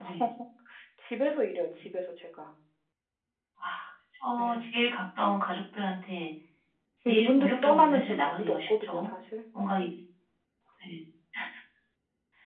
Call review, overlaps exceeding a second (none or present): present